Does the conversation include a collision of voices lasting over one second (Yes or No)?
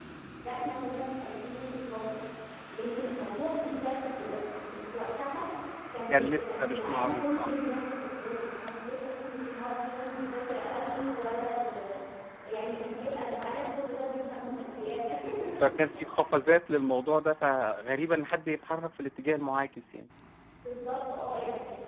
Yes